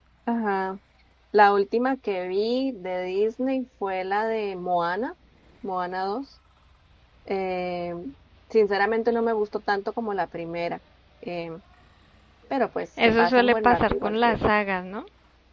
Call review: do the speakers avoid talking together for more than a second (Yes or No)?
No